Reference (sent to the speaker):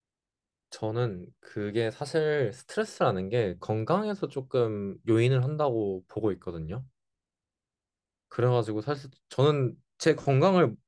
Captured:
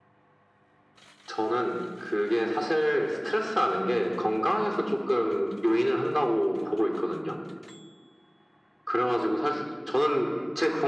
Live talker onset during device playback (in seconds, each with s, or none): none